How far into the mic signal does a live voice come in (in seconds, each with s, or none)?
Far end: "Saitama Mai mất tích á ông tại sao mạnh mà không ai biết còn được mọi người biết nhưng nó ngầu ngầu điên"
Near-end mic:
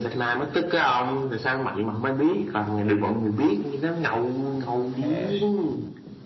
5.0 s